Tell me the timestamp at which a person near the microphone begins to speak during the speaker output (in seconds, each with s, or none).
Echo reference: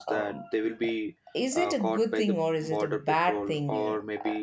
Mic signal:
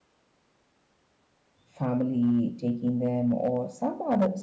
1.6 s